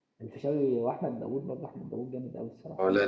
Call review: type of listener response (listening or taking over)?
listening